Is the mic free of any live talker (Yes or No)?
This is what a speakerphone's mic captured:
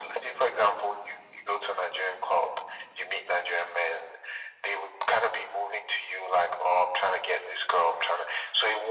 Yes